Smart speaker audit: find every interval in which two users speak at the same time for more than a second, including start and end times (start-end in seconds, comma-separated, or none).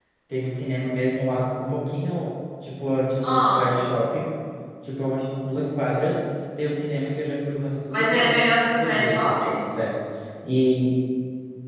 7.9-9.6